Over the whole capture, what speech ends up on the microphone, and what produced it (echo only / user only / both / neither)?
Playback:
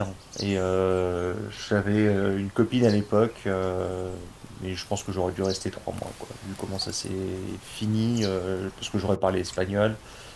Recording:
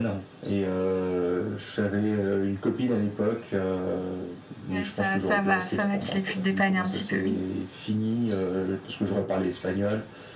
both